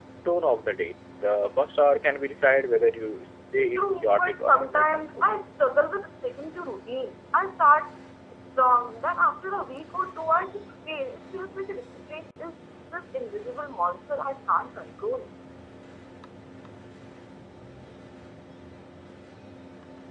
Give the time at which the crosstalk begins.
3.8 s

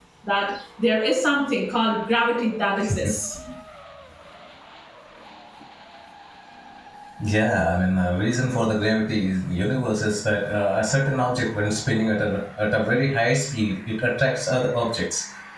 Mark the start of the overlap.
none

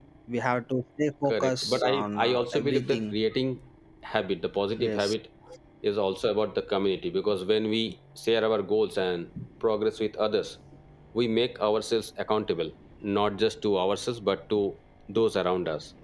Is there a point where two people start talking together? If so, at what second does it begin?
1.3 s

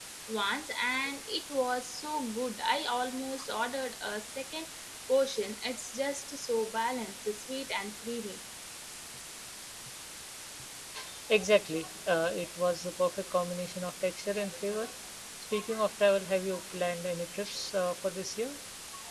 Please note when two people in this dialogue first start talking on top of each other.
none

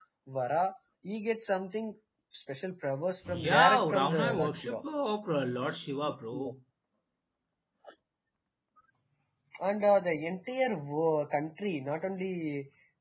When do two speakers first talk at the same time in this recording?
3.2 s

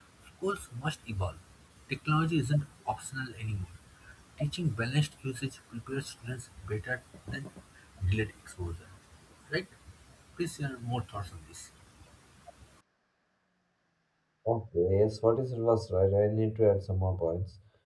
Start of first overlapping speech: none

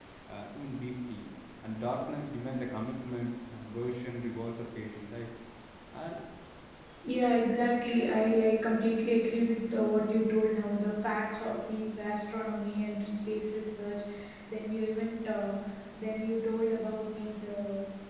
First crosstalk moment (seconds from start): none

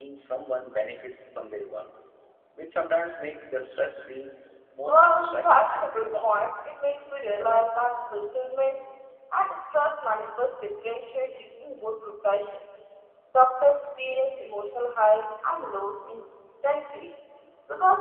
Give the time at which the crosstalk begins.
4.8 s

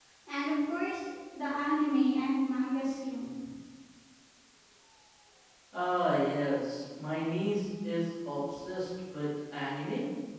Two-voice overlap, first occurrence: none

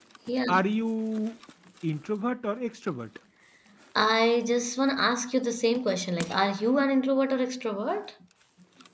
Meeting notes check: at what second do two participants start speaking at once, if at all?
none

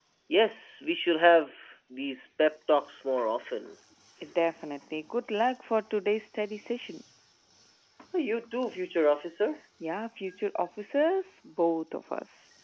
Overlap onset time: none

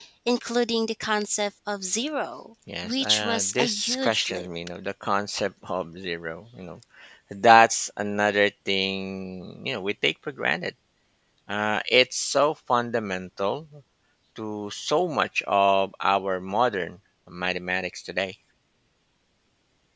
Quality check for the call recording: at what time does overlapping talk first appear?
2.7 s

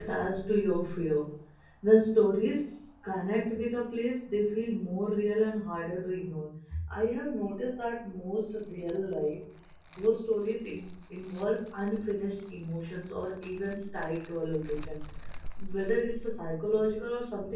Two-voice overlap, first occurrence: none

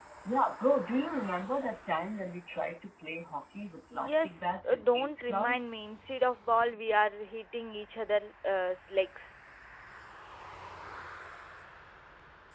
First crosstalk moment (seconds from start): 3.9 s

